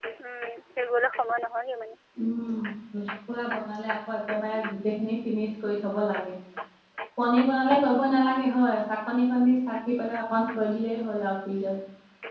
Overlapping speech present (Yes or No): No